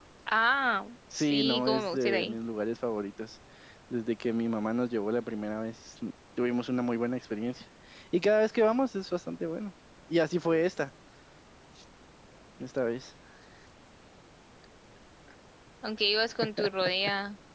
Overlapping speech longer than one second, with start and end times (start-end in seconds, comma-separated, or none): 1.1-2.4